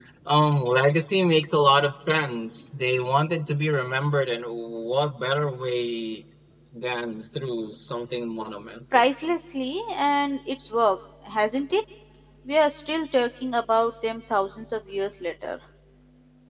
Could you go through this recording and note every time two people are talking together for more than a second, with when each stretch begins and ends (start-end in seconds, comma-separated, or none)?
none